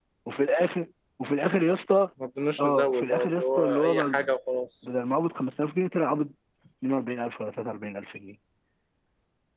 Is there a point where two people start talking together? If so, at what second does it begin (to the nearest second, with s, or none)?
3 s